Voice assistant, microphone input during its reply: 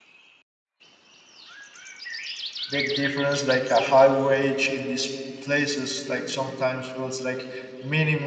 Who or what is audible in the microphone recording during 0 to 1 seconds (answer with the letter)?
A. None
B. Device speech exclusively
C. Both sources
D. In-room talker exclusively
A